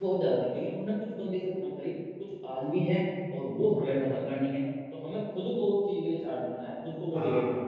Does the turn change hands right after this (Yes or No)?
No